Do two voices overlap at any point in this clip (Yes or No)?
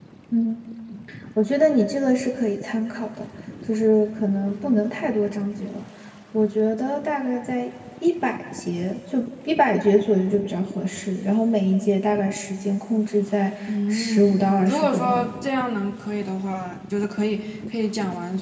Yes